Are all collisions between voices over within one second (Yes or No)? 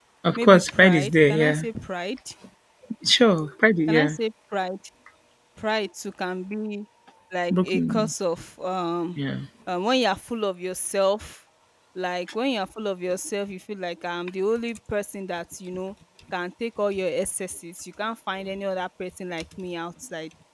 No